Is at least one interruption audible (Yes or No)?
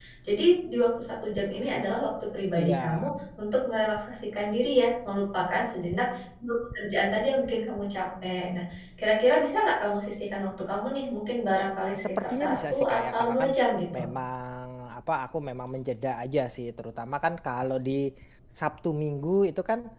Yes